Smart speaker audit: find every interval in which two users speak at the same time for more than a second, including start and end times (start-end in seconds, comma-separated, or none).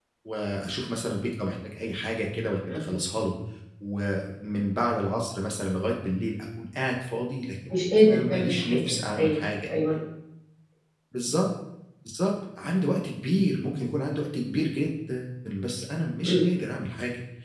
7.7-9.7